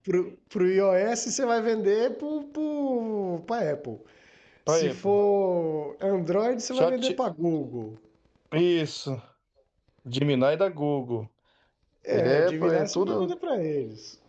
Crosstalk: present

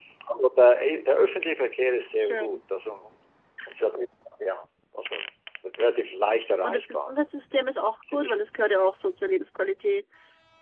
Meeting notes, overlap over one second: none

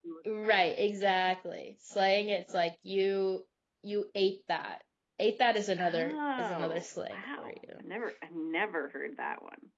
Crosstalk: present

